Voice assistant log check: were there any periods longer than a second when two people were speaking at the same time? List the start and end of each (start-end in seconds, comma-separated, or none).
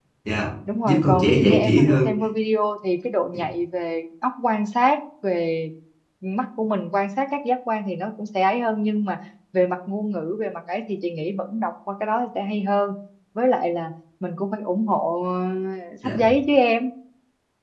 0.8-2.1